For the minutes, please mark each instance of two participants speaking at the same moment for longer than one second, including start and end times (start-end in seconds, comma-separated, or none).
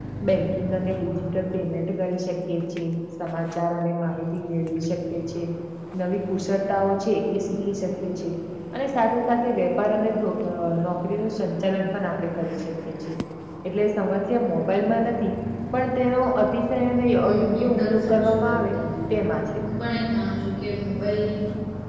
17.1-18.7